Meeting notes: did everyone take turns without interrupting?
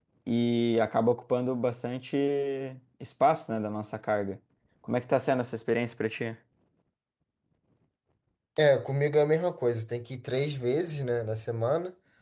Yes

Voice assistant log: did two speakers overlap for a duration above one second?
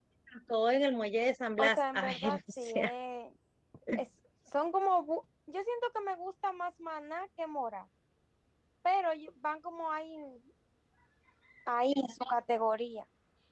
Yes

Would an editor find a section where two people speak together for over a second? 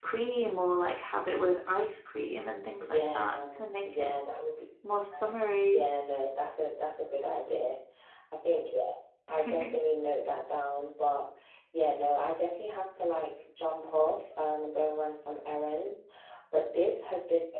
Yes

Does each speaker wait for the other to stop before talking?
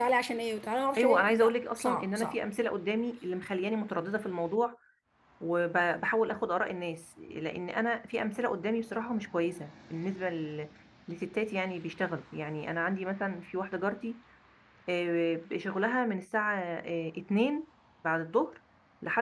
No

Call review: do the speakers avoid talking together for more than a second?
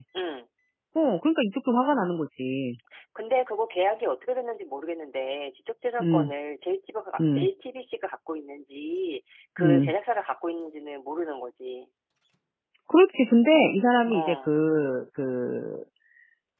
Yes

